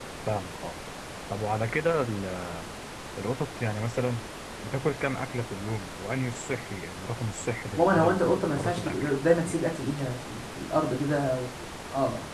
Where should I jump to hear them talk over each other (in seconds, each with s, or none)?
7.8 s